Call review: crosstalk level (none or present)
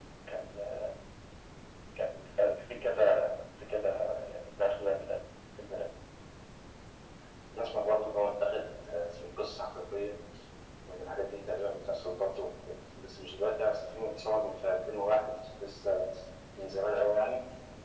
none